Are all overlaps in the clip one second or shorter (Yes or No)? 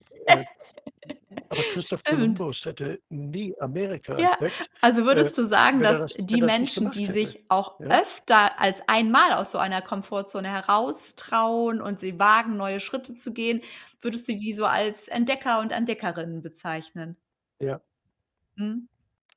No